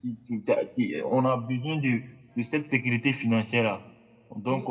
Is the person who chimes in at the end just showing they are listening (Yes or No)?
No